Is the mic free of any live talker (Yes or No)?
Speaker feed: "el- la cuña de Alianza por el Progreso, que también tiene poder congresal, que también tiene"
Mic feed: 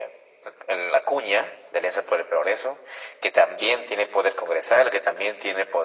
Yes